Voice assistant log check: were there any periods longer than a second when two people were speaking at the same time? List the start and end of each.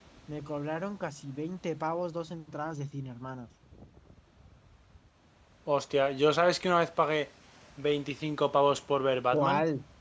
none

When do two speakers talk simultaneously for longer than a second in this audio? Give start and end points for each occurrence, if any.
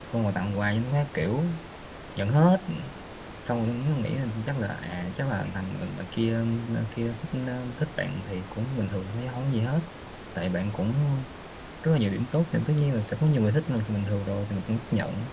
none

